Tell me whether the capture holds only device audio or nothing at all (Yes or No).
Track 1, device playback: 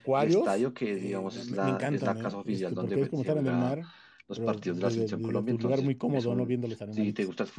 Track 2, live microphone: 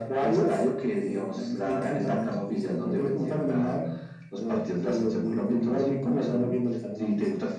Yes